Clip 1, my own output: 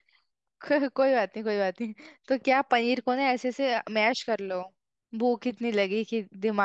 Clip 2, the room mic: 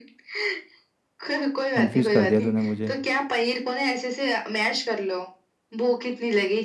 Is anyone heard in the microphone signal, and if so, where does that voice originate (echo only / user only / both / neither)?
both